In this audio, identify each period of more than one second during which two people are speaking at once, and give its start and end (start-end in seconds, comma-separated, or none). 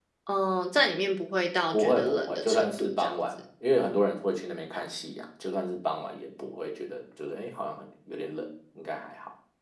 1.7-3.3